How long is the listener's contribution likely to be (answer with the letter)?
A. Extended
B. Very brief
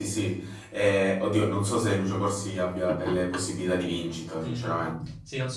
A